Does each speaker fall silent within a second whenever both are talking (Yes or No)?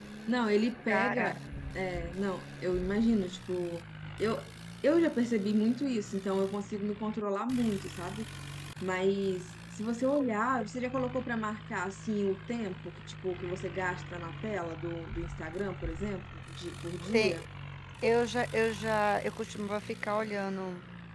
Yes